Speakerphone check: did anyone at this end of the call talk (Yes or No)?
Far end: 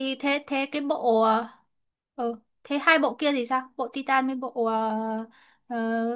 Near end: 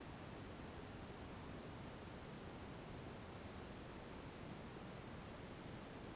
No